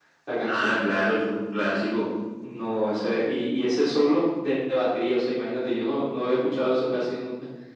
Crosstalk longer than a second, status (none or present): none